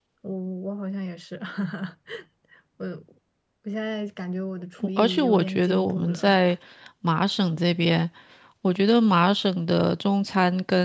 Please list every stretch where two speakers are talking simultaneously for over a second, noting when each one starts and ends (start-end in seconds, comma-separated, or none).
5.0-6.4